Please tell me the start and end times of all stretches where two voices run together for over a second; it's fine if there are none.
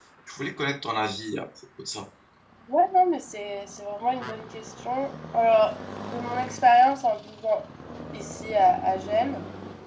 none

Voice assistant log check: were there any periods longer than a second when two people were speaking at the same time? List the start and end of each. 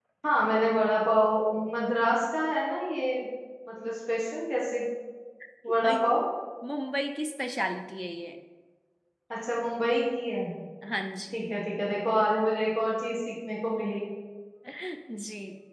none

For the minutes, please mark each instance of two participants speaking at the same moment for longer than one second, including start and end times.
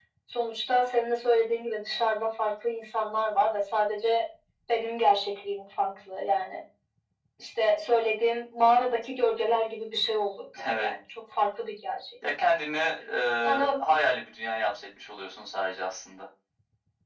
none

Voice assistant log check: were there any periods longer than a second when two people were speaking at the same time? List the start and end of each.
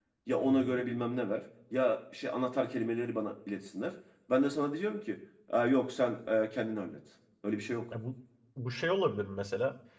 none

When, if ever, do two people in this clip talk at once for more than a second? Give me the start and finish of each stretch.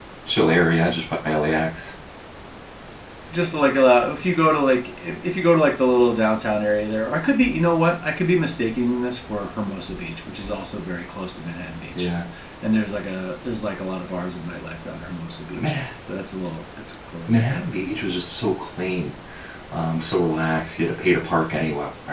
none

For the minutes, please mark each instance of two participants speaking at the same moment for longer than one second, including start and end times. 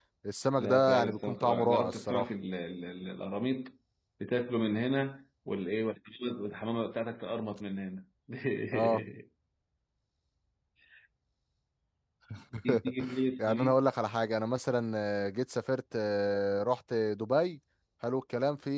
0.6-2.3

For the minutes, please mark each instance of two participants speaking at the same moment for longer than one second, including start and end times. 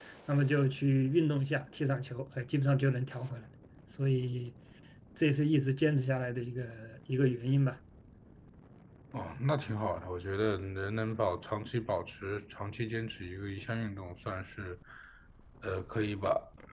none

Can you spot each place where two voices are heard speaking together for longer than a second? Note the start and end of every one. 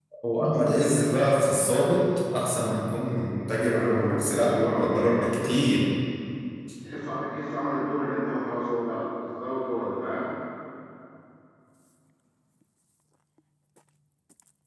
3.6-5.5

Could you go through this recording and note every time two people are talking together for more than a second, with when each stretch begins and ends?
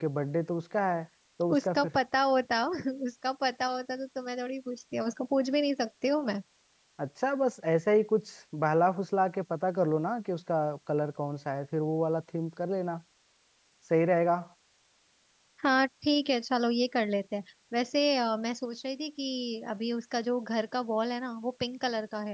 none

